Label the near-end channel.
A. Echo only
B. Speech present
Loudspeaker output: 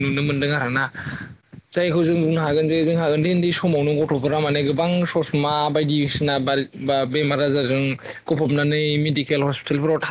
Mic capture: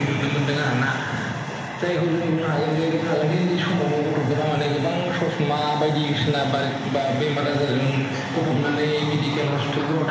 A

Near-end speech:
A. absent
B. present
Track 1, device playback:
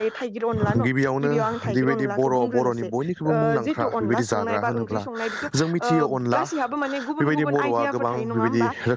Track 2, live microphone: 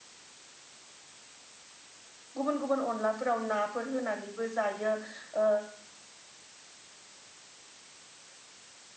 B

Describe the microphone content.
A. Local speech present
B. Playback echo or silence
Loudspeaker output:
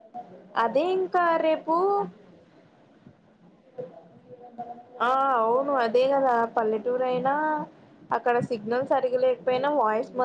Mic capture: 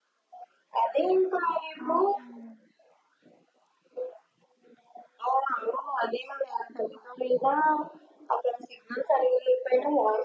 A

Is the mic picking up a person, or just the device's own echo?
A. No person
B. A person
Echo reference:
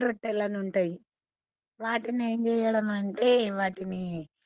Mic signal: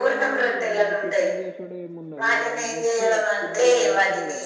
B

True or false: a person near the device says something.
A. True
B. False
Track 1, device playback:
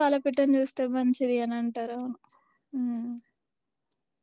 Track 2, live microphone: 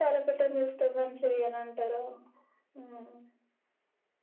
B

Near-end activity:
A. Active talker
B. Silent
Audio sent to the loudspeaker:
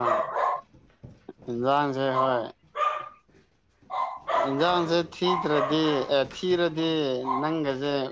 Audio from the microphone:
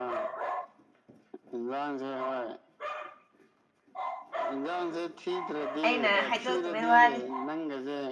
A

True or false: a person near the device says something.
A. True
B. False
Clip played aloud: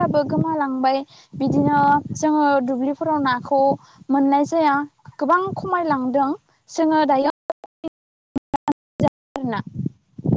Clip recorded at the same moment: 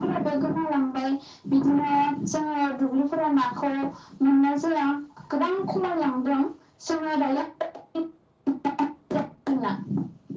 B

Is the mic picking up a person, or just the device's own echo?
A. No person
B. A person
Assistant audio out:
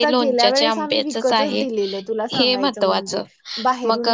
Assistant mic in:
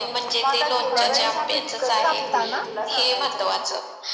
B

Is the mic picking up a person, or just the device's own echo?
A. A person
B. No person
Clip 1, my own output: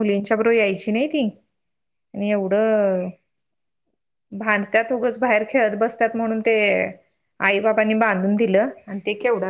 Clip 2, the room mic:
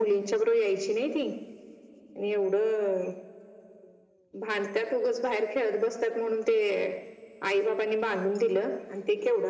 B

